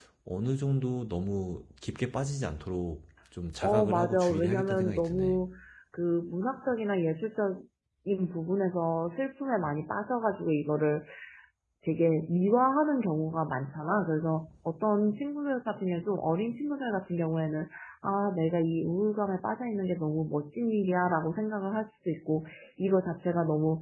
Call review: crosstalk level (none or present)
present